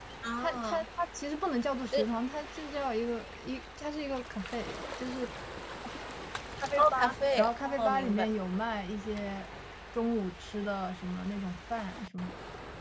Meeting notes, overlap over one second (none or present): present